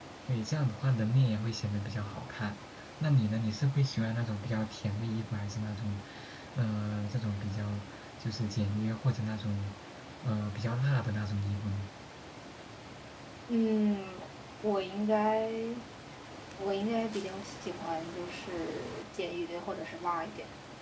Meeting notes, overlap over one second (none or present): none